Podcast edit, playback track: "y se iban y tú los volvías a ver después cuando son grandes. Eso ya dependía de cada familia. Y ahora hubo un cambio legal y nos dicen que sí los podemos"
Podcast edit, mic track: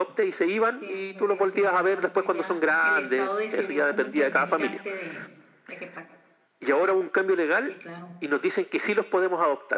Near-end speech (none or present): present